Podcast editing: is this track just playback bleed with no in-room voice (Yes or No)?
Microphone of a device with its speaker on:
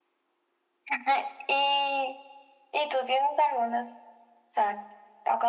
Yes